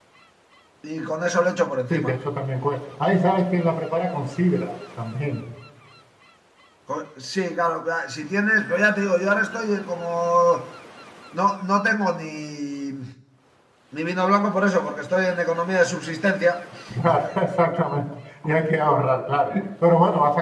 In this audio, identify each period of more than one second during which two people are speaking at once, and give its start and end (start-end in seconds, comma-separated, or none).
none